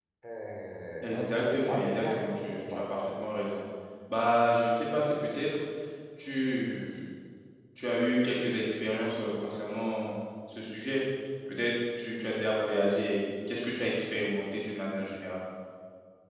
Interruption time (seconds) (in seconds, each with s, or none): 1.0 s